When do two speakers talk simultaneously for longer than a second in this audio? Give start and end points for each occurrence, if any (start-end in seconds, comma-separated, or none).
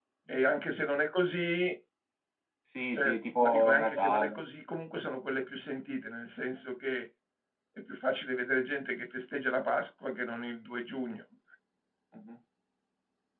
2.9-4.4